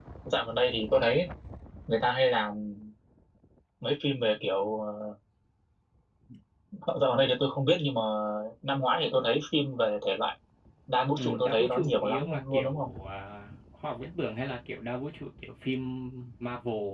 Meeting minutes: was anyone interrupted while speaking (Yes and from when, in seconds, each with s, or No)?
Yes, from 11.2 s